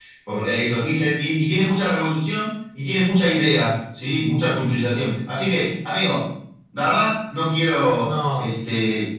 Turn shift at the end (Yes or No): No